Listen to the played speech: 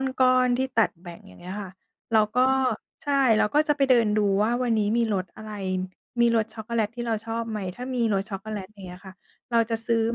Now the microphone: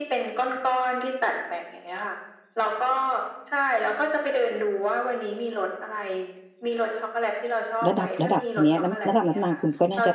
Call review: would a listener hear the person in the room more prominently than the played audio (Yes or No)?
Yes